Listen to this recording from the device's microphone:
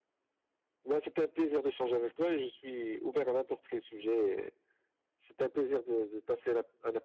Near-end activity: none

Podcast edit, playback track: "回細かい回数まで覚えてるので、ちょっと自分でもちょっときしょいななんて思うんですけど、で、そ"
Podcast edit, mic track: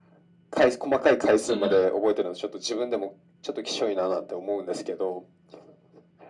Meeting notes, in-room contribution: present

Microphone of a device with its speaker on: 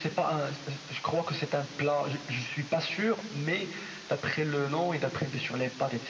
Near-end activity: none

